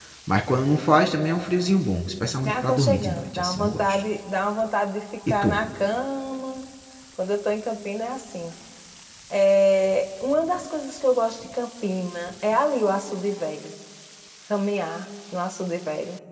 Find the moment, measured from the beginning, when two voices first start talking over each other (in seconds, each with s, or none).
2.5 s